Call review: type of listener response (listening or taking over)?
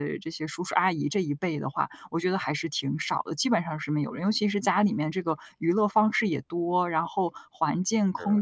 listening